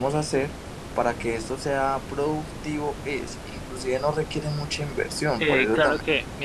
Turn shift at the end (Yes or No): Yes